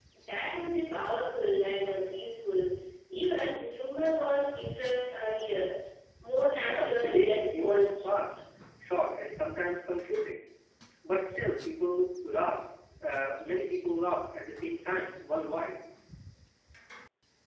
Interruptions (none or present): present